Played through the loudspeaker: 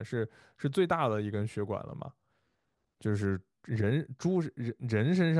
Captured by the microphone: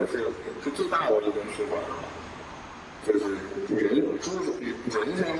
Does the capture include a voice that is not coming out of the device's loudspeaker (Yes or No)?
No